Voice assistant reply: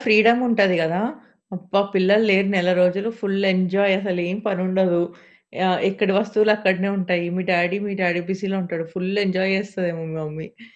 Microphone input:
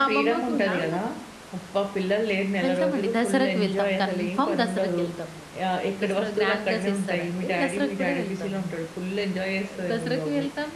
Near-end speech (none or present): present